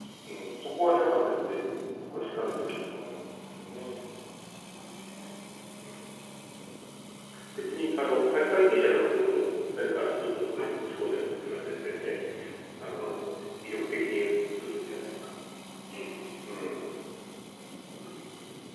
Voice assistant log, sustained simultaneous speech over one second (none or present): none